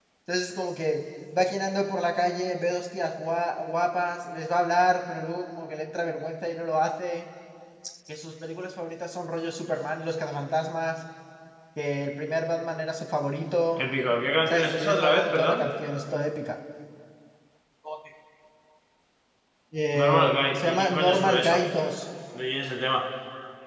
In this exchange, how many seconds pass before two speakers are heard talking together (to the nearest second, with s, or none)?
14 s